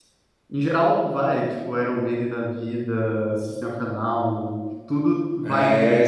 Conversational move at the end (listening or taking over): taking over